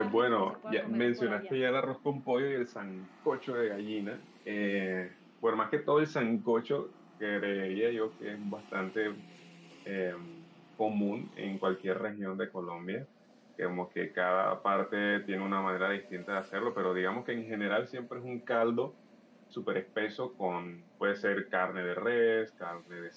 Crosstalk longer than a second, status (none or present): present